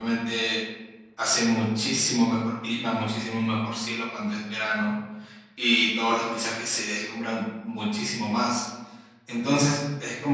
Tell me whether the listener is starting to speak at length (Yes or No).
No